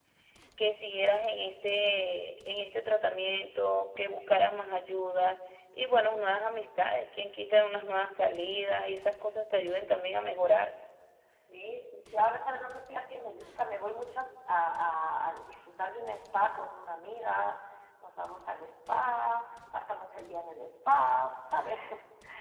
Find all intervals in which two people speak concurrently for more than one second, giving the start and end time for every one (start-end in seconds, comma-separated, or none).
none